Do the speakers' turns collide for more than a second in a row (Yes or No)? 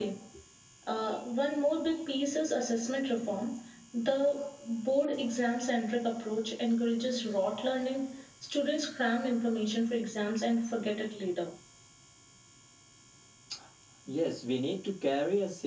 No